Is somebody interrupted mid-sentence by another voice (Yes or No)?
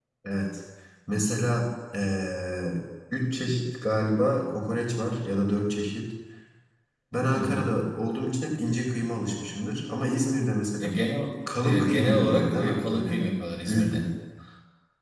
Yes